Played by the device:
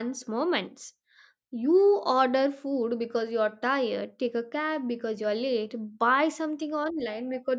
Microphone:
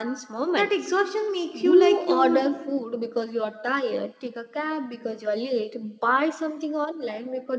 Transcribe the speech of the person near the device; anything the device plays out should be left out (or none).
that exhaustion makes you like you